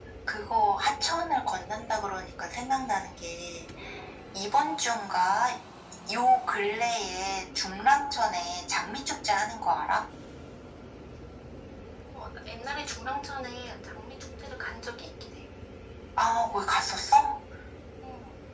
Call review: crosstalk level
none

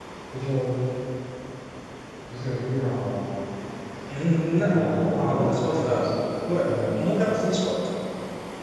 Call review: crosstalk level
present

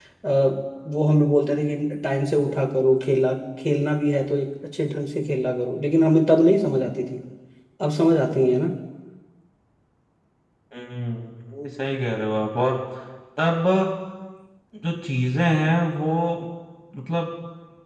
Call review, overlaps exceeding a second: none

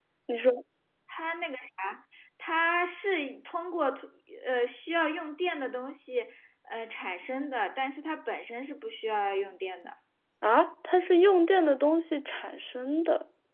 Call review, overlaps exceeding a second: none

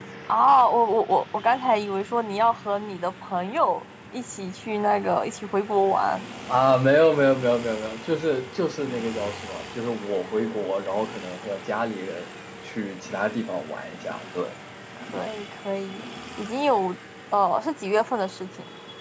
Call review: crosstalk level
none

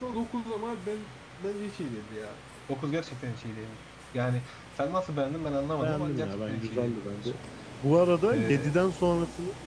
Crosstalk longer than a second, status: present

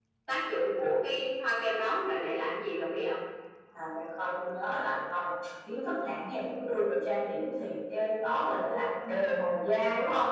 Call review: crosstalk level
none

